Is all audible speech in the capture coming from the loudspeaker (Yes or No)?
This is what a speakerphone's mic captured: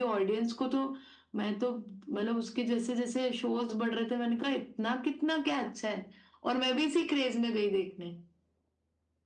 Yes